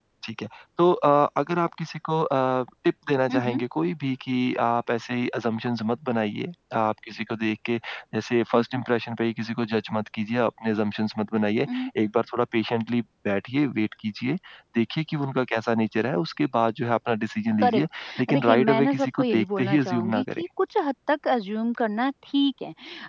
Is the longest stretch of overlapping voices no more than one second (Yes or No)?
No